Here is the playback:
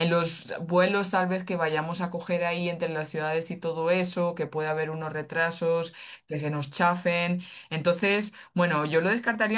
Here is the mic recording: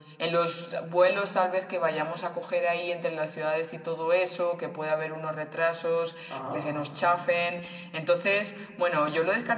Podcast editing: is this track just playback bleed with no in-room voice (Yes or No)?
No